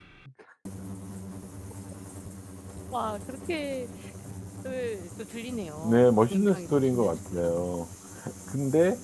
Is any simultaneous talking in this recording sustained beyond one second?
Yes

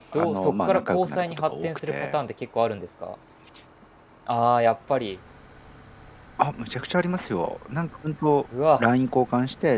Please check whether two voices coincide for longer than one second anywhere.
Yes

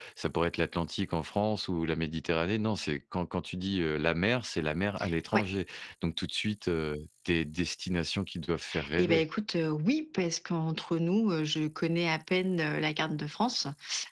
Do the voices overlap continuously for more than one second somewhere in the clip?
No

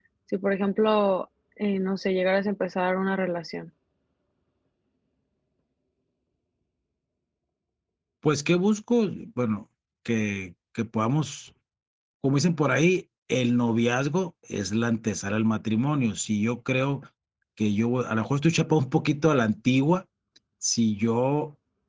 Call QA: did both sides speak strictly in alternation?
Yes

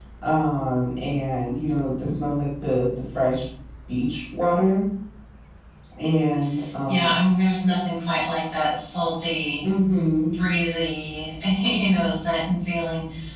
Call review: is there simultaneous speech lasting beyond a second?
No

